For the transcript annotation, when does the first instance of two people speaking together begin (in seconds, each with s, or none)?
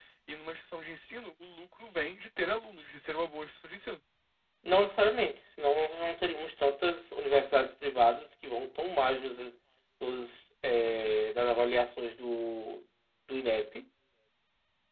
none